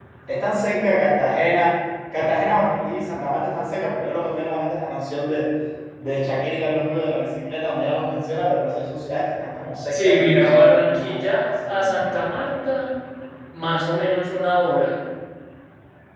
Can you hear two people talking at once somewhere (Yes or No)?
Yes